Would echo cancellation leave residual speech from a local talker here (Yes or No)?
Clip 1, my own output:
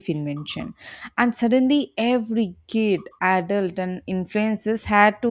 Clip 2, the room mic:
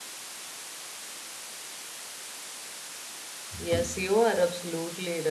Yes